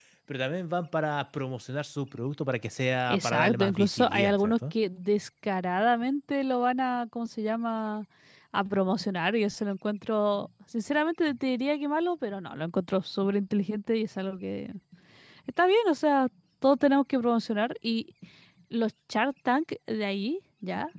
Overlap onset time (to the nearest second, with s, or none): 3 s